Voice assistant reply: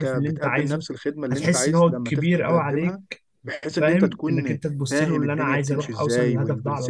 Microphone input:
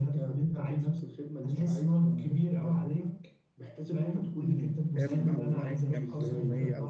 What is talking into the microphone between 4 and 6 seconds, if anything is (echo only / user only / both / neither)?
both